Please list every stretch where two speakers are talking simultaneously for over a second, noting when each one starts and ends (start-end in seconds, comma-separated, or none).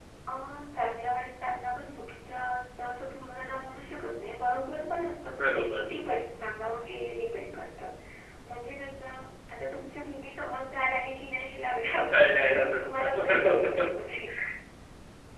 12.1-13.8